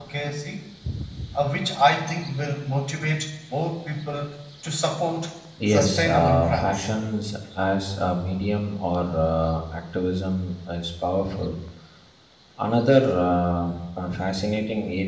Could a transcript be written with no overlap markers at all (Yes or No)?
No